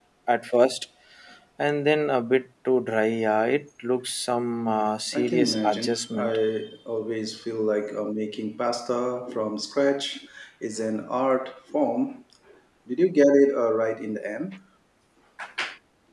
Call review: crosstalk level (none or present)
present